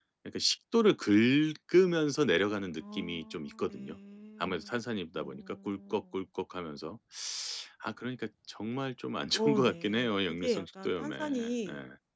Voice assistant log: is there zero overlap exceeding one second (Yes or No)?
No